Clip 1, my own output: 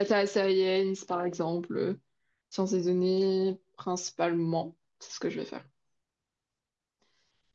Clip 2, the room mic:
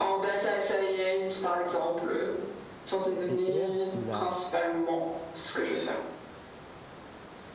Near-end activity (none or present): present